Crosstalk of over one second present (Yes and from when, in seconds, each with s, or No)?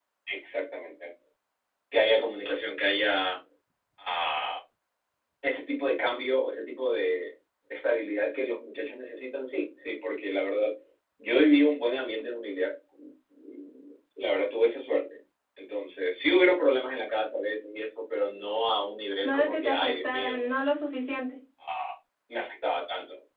Yes, from 19.2 s